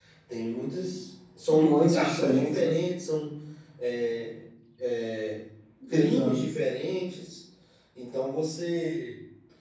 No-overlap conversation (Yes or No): No